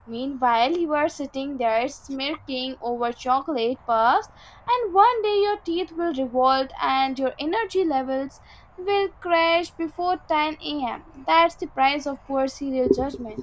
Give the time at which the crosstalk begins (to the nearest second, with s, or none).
none